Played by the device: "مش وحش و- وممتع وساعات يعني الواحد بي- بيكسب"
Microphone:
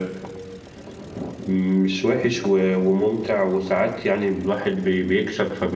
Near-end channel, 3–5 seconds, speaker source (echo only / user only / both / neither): echo only